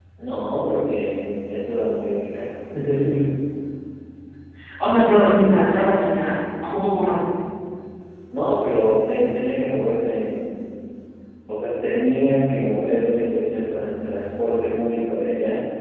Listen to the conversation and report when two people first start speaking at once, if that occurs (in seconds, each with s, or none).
none